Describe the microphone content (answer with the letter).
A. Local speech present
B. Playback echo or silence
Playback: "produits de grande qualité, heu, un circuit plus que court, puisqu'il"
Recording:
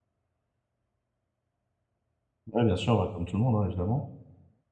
A